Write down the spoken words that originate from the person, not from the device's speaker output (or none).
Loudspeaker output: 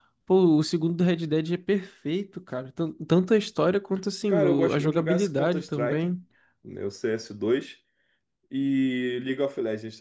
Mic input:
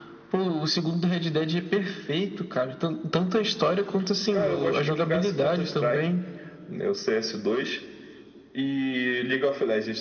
none